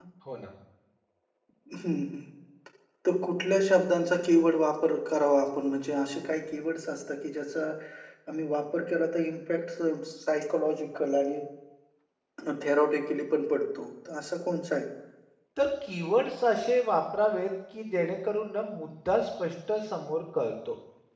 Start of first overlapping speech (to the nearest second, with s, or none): none